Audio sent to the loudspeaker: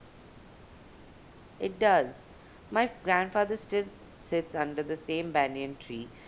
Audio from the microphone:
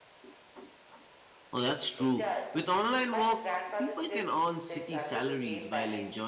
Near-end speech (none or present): present